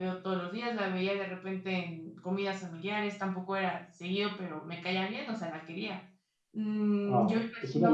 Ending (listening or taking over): taking over